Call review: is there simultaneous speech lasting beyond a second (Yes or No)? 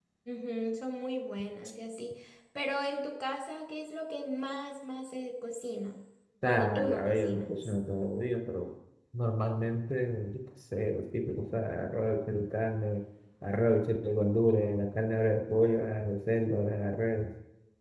Yes